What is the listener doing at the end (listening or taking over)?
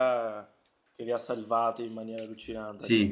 taking over